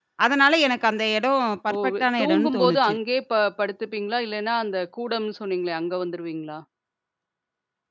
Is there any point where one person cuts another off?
Yes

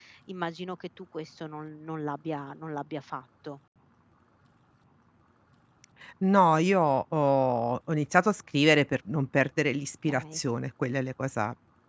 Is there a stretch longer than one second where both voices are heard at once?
No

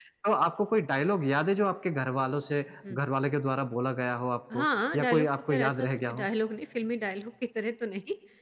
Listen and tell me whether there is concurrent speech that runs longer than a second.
Yes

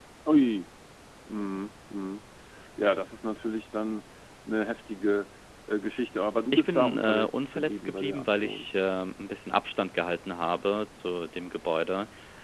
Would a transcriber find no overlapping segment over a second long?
No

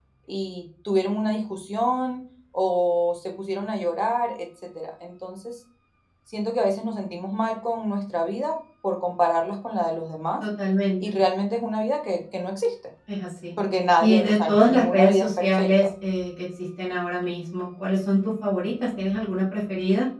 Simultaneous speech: Yes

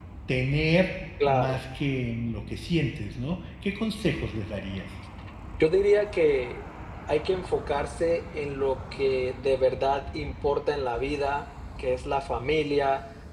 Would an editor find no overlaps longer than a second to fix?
Yes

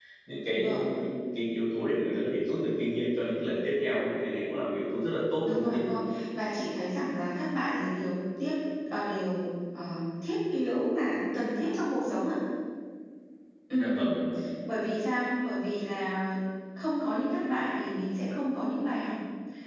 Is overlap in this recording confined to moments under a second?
Yes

